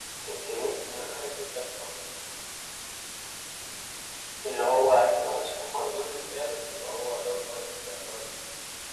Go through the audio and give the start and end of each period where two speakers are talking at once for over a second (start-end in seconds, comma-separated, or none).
none